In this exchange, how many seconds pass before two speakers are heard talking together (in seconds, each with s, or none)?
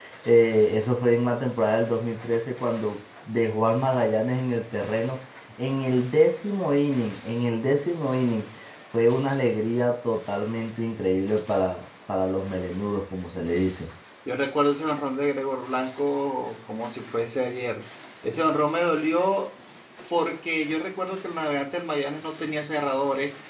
none